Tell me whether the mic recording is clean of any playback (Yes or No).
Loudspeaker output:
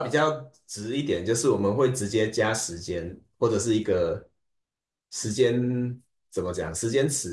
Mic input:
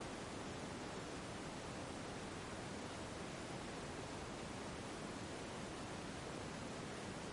Yes